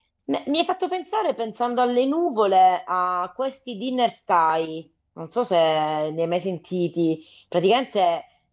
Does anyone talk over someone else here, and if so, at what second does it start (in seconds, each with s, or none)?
none